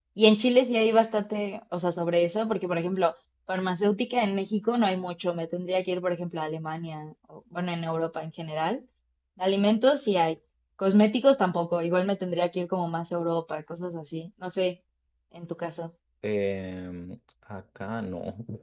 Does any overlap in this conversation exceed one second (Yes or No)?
No